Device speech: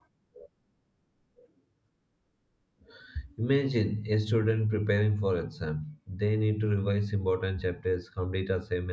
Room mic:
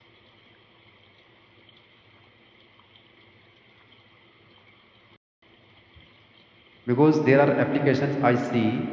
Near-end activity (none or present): present